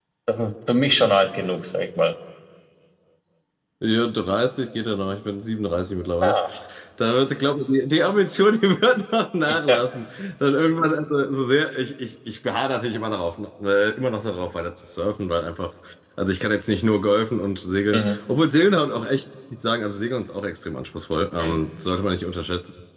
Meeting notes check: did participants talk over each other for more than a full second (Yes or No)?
No